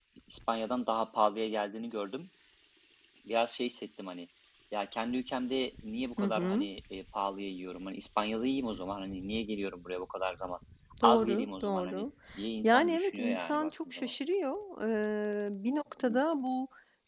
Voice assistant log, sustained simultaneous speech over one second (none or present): present